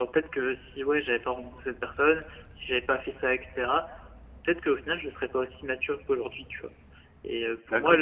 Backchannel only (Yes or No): Yes